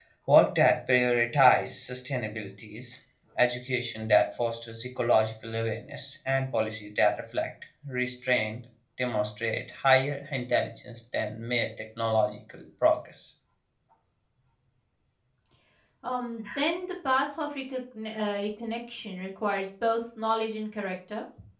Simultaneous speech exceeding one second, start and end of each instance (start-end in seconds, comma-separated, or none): none